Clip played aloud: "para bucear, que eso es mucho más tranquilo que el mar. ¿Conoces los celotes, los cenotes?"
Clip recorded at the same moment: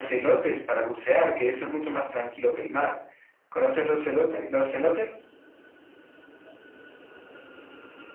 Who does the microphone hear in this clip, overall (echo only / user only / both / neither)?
echo only